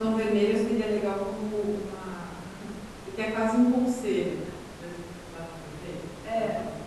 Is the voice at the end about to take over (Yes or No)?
Yes